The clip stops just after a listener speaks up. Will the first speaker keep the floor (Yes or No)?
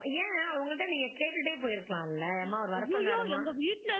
No